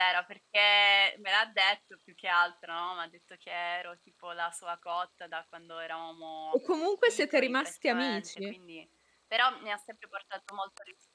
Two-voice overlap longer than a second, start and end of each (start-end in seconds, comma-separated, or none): 7.1-8.5